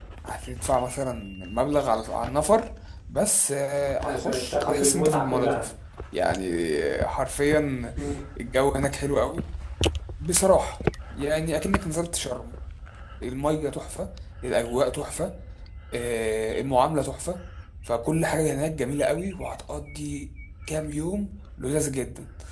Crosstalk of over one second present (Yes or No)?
Yes